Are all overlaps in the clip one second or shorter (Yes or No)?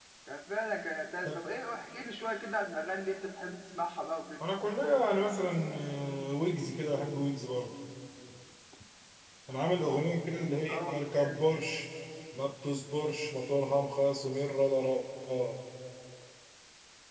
Yes